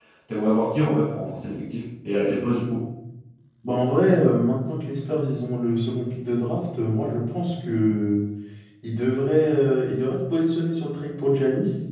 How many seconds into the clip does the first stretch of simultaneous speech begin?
none

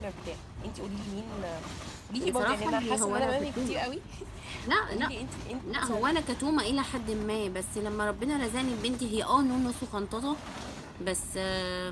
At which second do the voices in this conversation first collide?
2.2 s

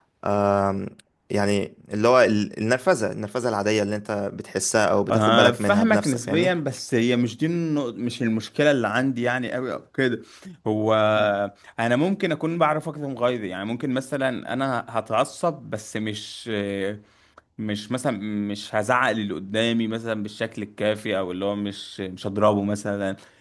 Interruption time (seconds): 5.1 s

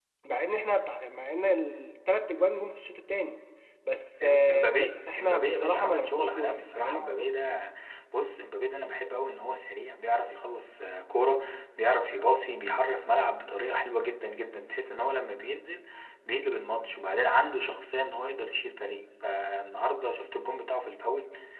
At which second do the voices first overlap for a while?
4.2 s

